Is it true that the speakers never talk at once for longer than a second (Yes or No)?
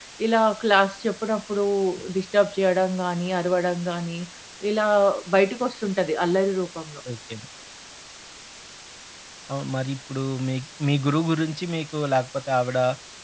Yes